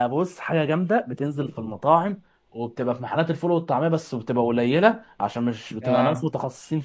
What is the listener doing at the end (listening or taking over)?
listening